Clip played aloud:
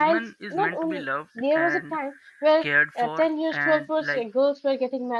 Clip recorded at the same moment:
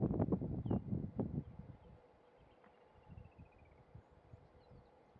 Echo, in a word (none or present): none